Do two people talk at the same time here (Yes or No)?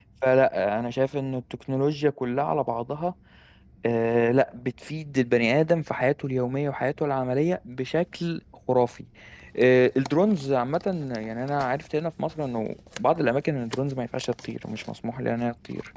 No